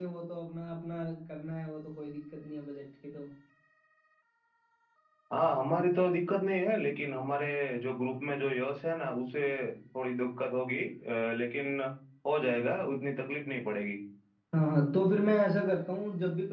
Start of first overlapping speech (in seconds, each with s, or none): none